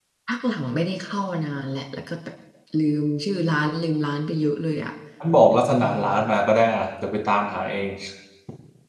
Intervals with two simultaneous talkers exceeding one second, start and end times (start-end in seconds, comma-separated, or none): none